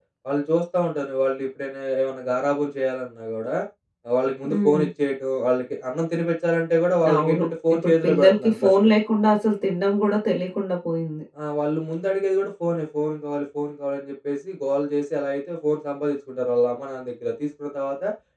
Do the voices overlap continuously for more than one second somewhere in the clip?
Yes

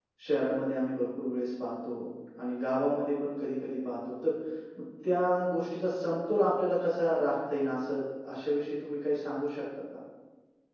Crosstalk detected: No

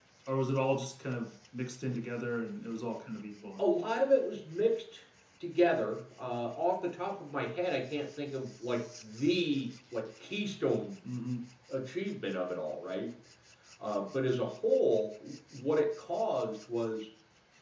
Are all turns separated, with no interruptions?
Yes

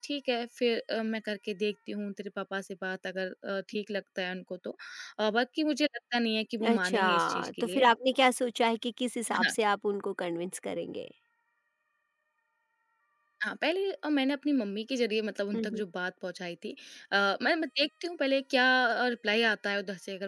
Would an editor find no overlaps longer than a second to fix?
No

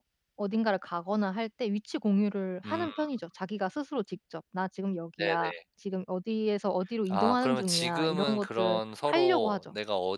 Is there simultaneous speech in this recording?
Yes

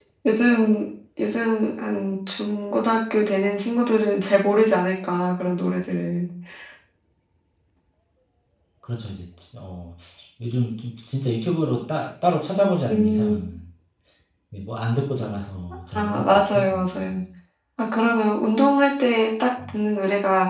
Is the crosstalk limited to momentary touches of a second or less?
No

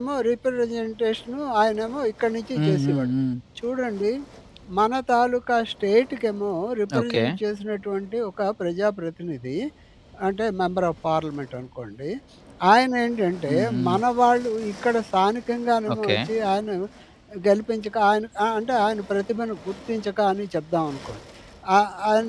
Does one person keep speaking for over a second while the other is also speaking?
No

